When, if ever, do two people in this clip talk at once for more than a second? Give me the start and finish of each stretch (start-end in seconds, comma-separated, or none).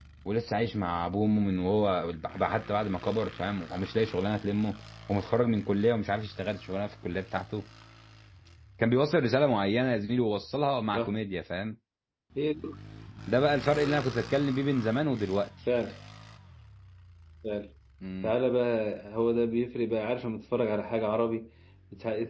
none